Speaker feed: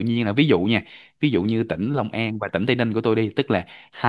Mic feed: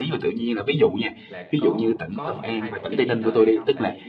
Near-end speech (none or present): present